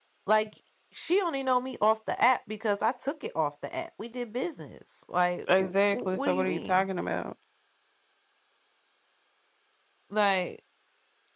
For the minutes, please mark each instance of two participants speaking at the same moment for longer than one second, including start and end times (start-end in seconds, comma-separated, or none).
5.6-6.9